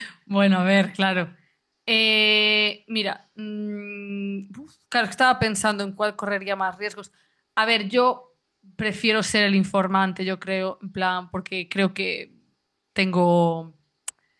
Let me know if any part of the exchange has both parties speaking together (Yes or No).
No